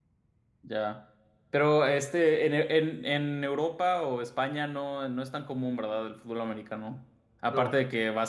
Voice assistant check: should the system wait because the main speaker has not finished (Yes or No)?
Yes